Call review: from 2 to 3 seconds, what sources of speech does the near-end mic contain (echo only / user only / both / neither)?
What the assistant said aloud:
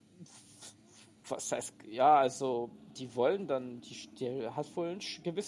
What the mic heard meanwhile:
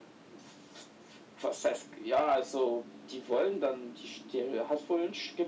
echo only